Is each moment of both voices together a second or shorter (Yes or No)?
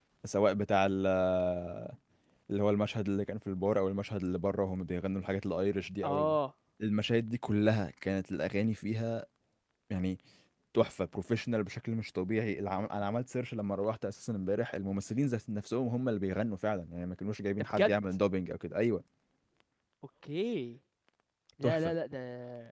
Yes